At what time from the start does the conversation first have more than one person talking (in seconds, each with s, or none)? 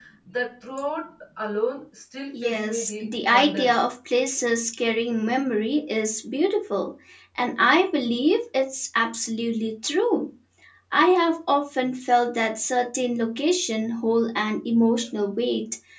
2.3 s